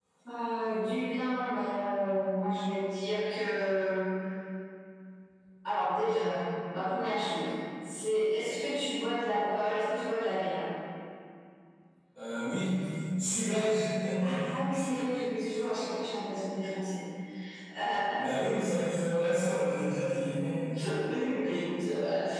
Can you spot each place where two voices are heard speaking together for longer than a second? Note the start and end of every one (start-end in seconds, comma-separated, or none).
none